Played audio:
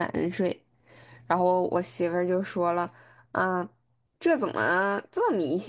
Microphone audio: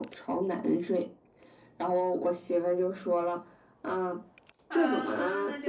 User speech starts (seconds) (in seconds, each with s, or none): 4.7 s